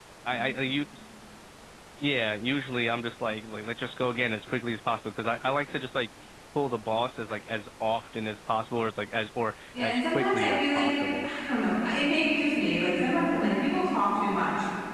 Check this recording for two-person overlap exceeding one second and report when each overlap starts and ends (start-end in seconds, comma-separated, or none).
9.8-11.3